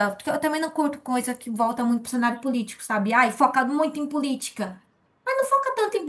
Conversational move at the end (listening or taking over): listening